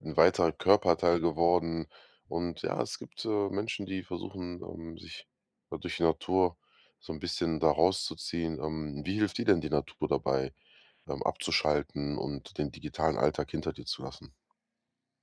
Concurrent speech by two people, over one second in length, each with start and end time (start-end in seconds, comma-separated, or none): none